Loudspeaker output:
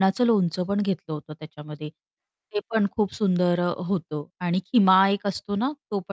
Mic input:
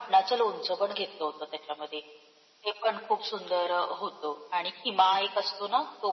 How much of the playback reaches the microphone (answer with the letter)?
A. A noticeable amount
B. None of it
A